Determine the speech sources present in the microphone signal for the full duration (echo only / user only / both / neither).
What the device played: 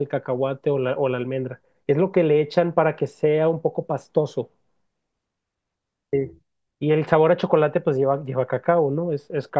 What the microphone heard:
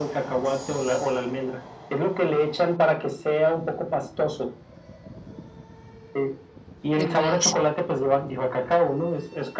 both